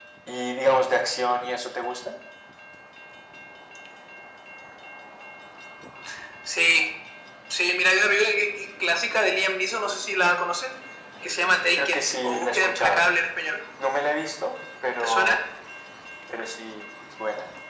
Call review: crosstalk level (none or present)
present